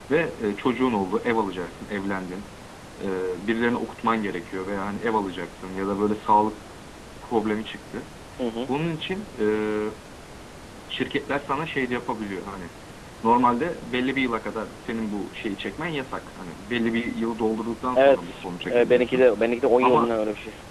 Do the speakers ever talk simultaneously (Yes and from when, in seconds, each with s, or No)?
Yes, from 18.0 s